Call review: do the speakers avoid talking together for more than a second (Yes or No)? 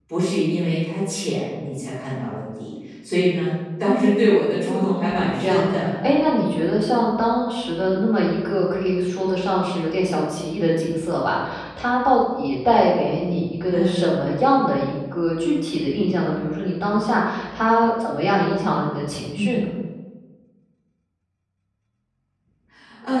No